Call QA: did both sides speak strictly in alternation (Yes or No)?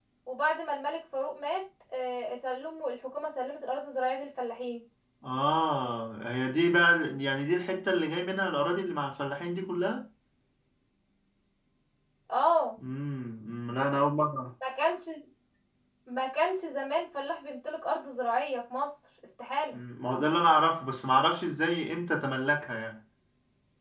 Yes